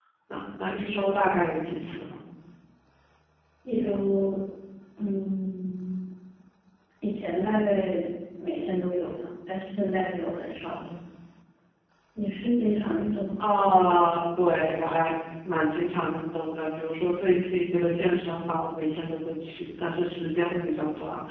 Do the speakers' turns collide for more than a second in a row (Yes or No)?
No